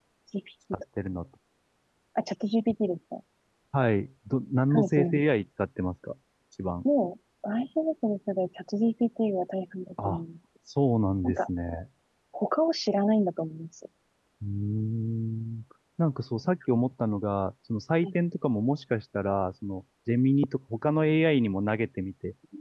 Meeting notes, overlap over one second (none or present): none